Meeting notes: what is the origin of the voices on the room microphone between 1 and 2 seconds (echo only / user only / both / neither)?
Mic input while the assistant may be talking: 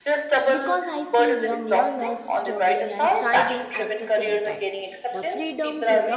both